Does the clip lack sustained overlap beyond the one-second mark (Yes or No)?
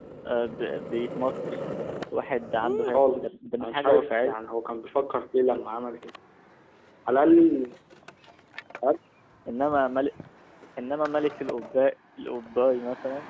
No